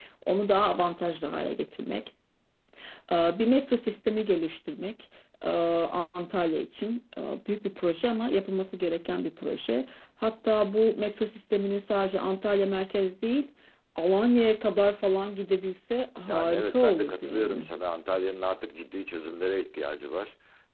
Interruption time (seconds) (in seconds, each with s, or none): 16.3 s